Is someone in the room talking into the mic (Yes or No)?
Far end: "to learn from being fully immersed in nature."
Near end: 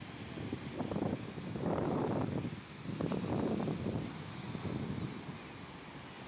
No